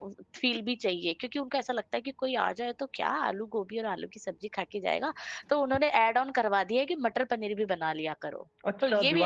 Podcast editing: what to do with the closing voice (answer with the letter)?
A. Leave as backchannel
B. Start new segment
B